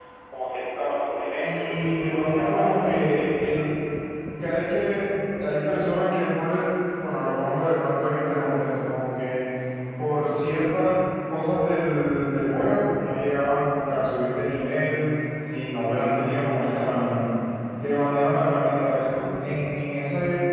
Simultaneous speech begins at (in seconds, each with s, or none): 1.4 s